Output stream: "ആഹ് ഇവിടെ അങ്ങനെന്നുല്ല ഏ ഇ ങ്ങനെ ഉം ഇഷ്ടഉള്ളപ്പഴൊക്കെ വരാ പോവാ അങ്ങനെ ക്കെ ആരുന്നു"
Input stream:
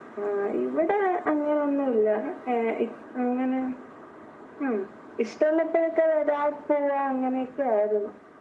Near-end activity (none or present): none